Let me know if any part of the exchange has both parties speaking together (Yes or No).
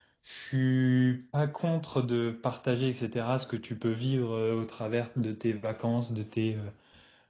No